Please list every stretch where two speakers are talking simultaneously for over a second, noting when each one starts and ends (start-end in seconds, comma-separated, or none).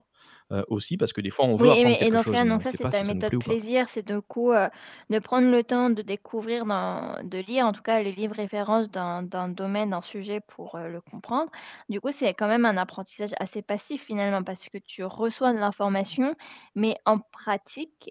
1.6-3.6